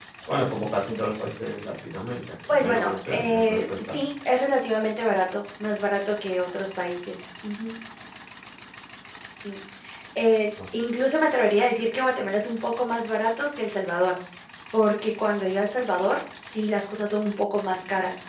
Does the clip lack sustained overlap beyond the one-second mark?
No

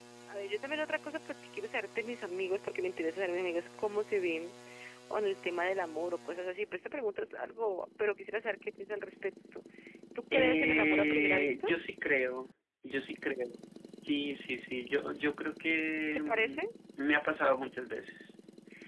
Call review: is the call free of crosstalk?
No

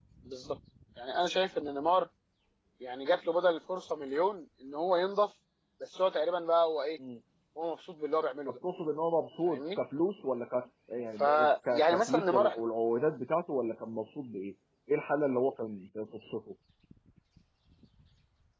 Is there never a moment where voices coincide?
No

